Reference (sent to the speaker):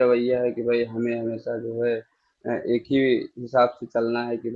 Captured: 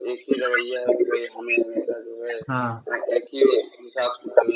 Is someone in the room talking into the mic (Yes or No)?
Yes